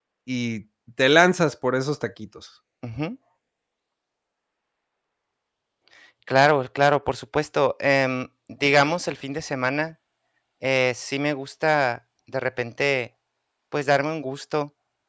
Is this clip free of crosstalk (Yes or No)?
Yes